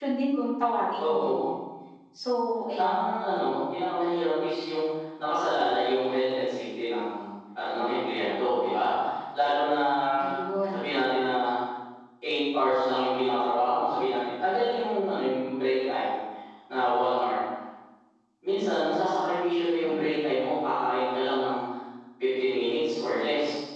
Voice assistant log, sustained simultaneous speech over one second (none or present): none